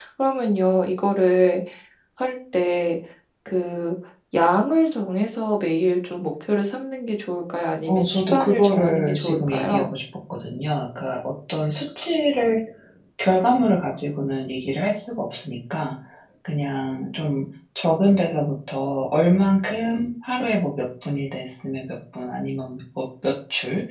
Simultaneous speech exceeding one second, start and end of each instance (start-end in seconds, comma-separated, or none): 7.9-9.9